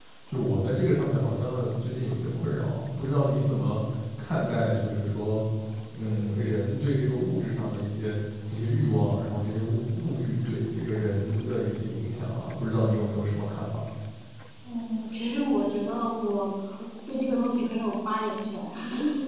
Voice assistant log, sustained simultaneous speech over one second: none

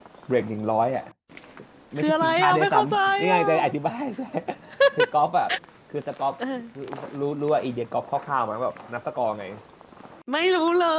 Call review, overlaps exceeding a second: present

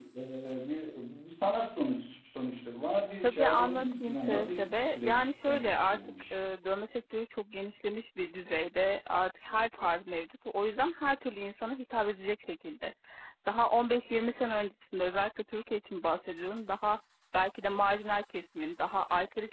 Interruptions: present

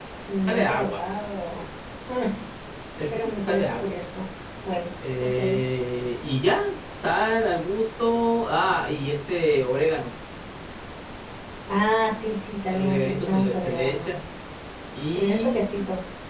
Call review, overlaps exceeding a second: present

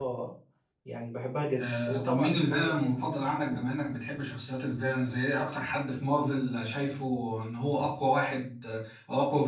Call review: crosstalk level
present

